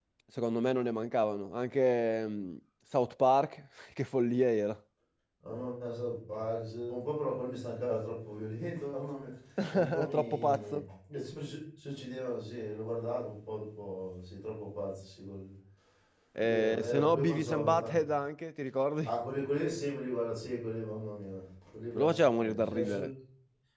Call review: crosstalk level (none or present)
present